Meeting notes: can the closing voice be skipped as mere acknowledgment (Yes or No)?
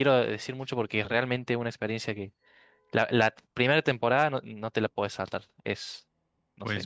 No